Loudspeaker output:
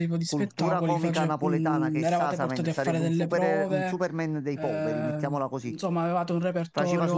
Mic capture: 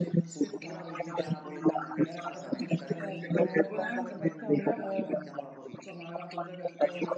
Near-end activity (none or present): present